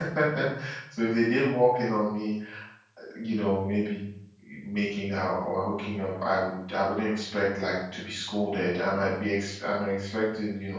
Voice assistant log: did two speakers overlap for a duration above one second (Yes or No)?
No